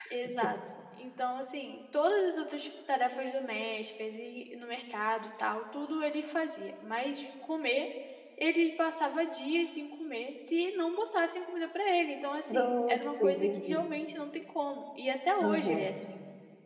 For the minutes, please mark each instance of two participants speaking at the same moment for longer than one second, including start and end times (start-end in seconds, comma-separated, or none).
12.5-13.8